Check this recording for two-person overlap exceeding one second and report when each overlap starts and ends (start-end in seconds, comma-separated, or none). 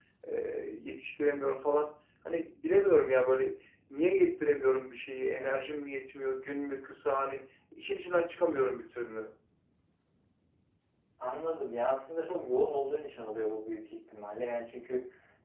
none